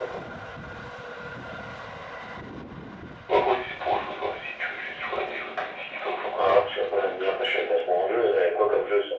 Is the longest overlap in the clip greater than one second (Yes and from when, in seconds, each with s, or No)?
Yes, from 6.3 s